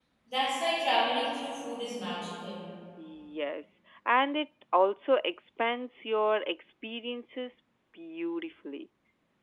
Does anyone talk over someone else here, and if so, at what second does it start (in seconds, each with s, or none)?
none